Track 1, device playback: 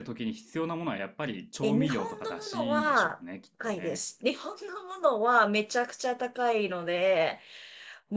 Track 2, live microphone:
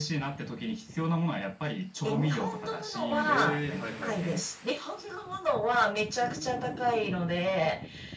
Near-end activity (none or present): present